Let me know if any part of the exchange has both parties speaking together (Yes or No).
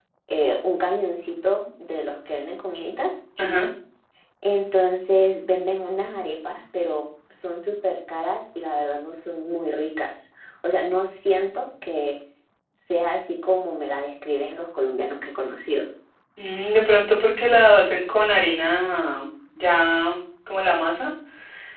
No